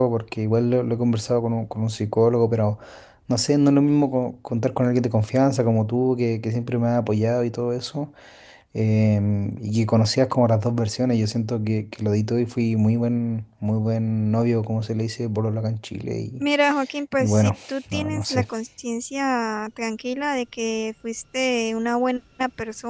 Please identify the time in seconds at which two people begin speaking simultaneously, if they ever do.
17.2 s

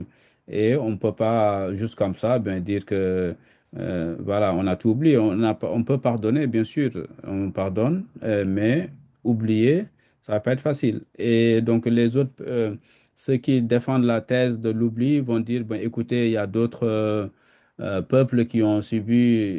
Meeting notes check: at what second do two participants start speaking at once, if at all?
none

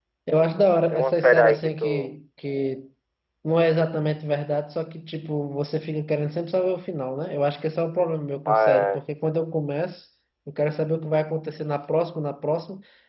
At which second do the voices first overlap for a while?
0.9 s

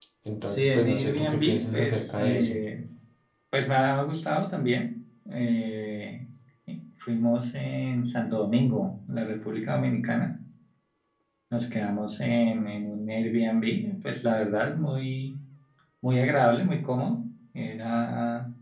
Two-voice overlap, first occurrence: 0.6 s

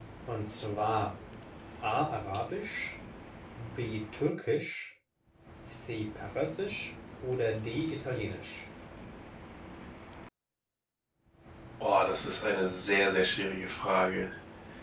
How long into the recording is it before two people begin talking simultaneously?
none

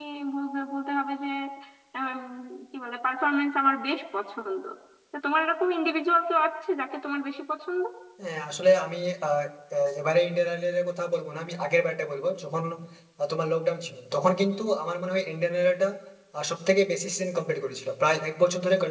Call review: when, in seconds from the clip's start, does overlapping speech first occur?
none

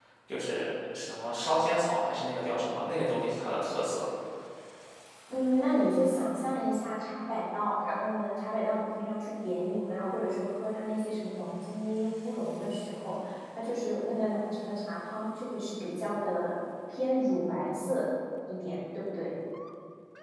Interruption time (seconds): none

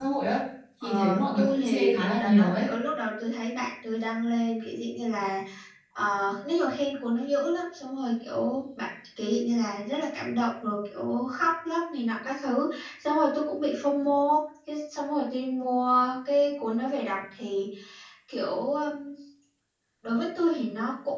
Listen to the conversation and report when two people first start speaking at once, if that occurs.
0.8 s

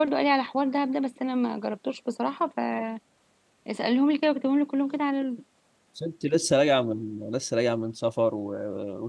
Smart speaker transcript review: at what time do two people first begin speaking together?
none

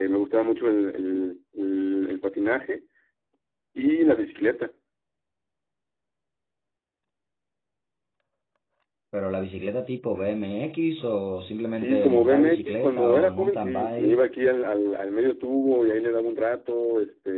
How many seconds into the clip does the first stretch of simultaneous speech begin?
11.8 s

